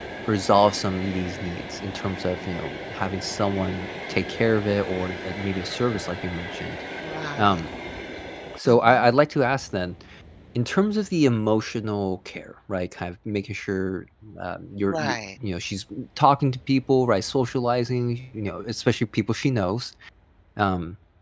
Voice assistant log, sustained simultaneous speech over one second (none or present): none